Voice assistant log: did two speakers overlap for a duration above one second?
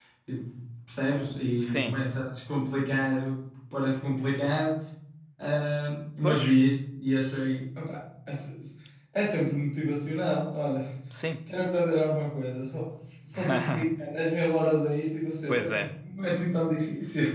No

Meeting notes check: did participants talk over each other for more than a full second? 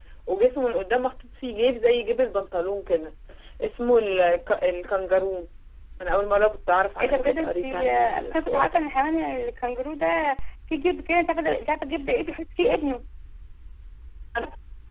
Yes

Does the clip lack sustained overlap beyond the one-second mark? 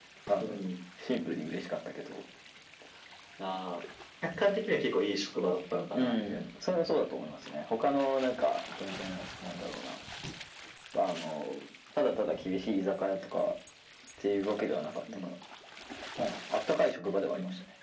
Yes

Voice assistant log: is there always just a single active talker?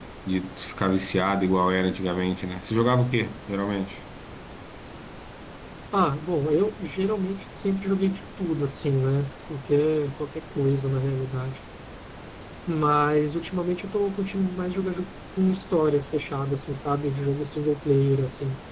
Yes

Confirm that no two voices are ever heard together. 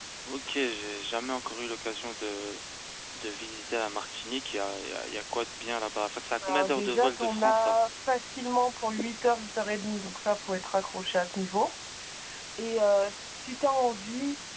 No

